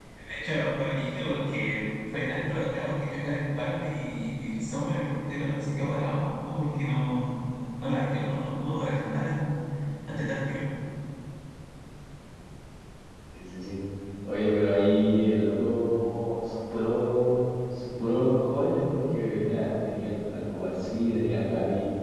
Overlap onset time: none

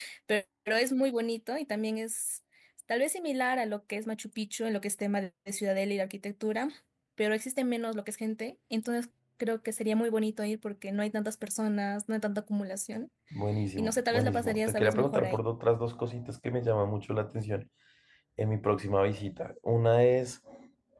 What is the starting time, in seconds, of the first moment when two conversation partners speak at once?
14 s

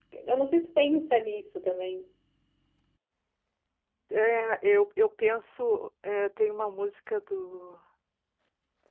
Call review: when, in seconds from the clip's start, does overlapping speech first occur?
none

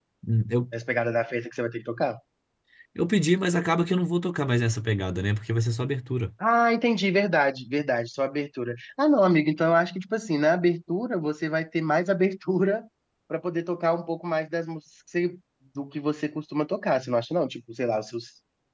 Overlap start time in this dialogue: none

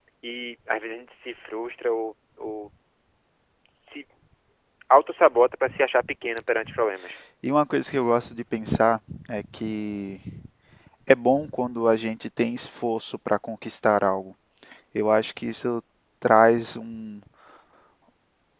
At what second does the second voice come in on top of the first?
none

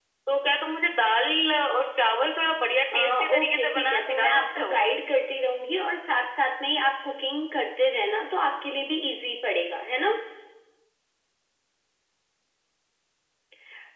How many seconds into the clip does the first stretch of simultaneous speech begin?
3 s

